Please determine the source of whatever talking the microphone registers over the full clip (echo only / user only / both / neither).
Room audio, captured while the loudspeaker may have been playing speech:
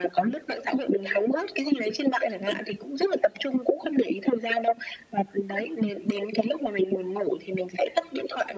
echo only